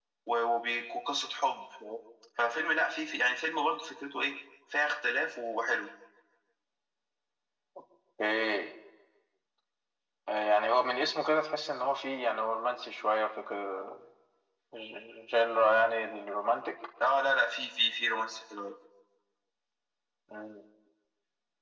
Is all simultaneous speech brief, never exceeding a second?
Yes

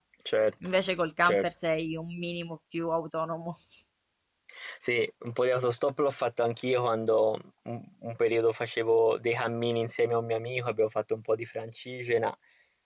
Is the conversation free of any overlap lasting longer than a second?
Yes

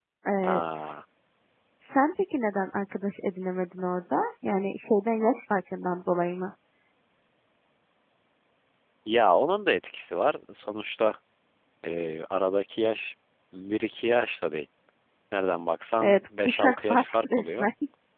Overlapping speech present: Yes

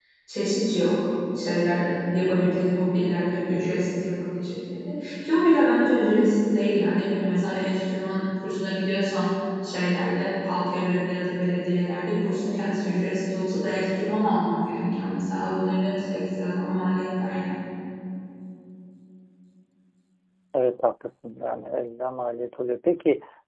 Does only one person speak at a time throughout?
Yes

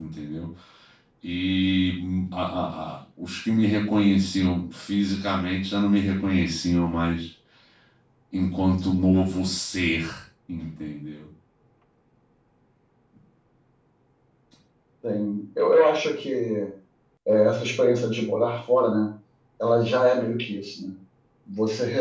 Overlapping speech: No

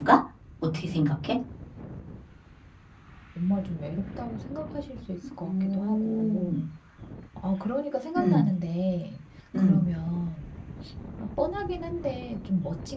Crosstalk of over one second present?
Yes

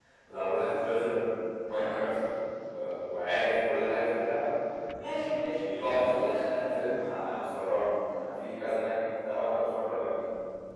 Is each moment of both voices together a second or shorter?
No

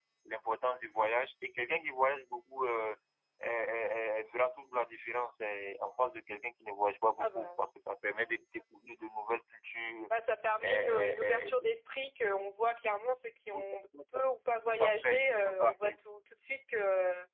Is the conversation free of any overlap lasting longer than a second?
No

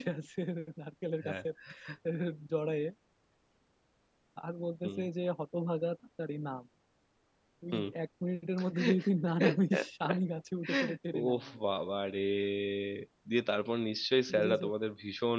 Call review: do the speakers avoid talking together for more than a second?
Yes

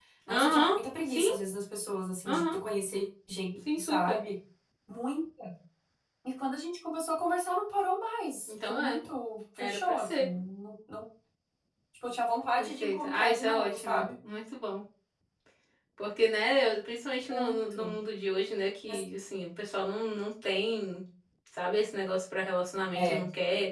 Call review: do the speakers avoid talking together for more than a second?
No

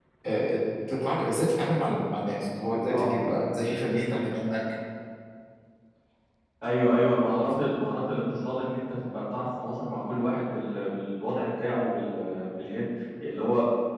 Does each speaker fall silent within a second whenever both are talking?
Yes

